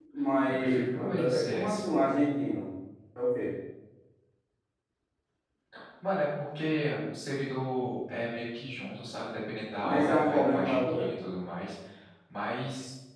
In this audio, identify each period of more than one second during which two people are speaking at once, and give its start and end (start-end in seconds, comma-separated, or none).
0.6-1.8, 9.8-11.1